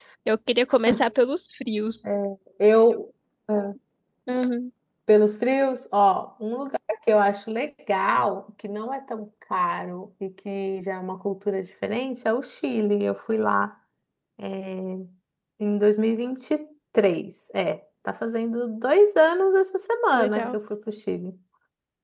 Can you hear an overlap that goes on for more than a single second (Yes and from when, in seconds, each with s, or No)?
No